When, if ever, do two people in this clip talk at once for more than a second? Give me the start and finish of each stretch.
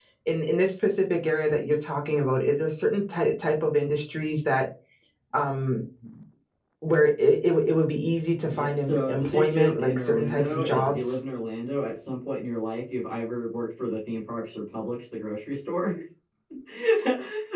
8.5-11.0

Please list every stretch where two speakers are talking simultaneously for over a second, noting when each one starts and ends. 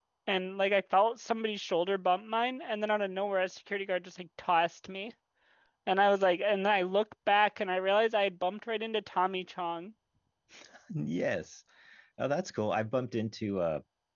none

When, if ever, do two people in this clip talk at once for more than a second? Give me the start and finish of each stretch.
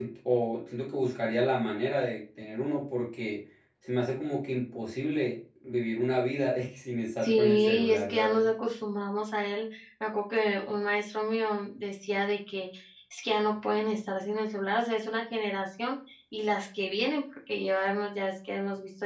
7.2-8.5

